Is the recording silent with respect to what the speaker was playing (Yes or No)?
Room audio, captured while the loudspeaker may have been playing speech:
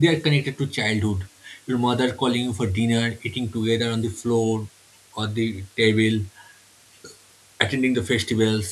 Yes